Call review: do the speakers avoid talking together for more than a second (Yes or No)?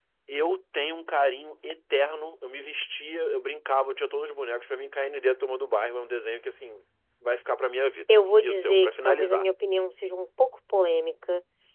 No